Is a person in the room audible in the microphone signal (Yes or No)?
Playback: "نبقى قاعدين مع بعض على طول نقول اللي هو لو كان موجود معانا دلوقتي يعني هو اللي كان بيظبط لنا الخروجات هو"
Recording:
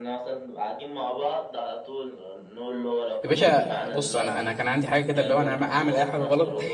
Yes